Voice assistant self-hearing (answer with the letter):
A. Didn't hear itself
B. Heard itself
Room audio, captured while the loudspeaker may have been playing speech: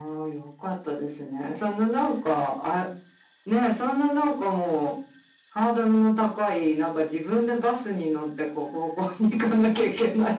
B